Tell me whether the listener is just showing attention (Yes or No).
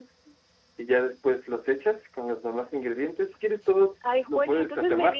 No